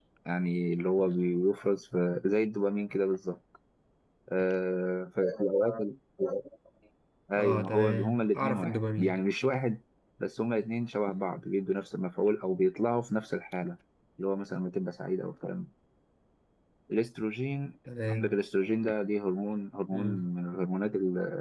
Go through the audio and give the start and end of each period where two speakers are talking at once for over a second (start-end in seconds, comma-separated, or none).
7.4-9.2